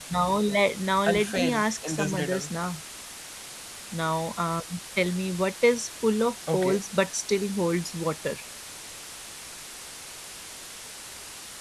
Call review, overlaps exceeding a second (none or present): present